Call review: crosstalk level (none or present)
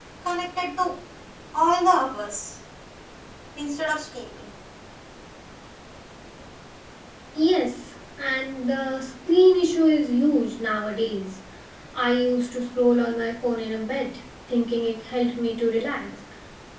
none